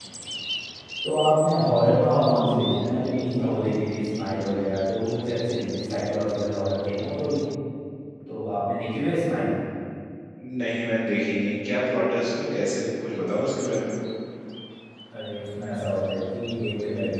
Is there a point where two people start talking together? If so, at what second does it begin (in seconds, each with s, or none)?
none